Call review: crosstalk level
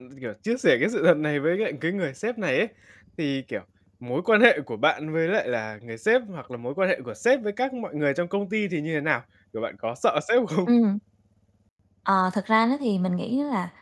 none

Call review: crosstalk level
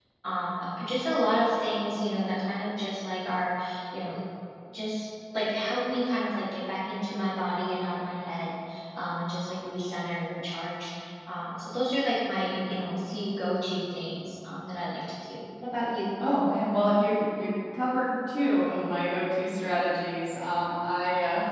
none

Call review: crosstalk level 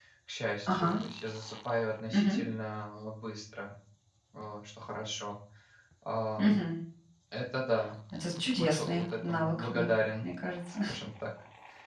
present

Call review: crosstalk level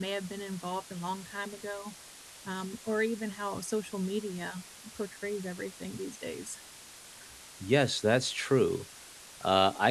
none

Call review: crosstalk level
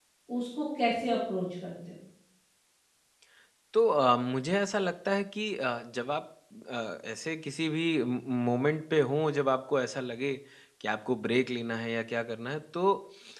none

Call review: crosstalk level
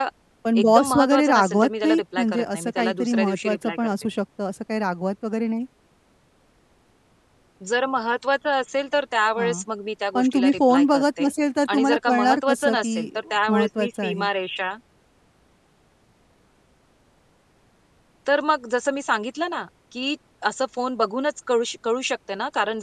present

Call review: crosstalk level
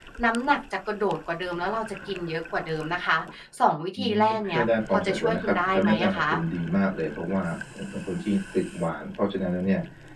present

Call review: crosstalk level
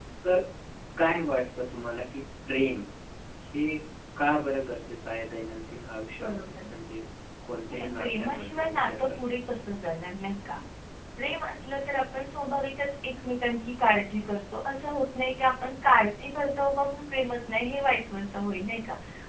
present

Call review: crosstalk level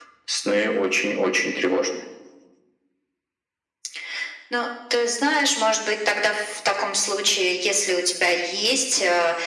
none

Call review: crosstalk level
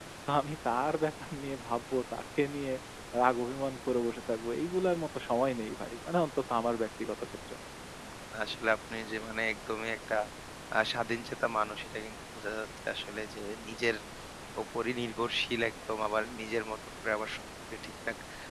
none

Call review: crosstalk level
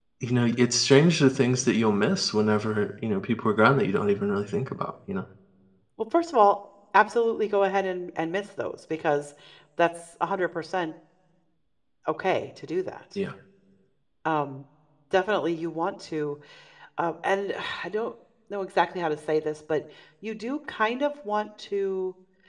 none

